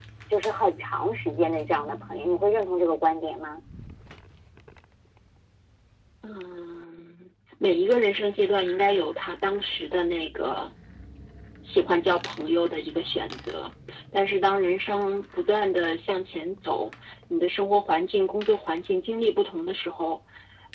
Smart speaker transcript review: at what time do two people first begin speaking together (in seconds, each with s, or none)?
none